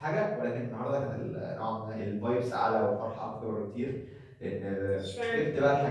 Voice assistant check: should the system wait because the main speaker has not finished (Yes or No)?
Yes